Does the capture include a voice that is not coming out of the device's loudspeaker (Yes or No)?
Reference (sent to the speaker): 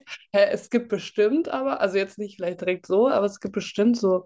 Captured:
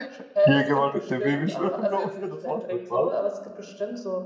Yes